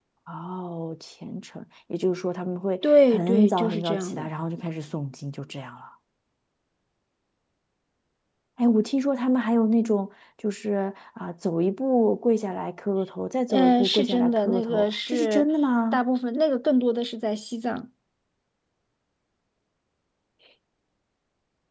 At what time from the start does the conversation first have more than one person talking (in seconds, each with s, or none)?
2.8 s